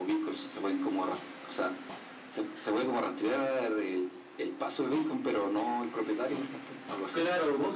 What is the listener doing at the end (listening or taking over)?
taking over